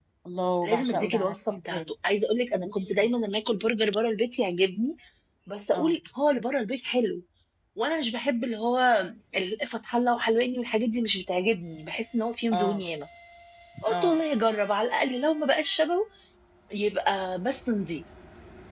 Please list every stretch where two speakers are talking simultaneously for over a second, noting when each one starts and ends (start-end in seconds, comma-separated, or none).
0.6-1.8